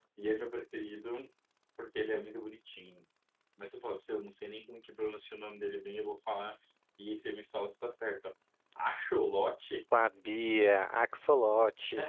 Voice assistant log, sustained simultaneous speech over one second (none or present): none